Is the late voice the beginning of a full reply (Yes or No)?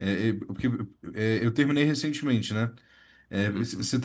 No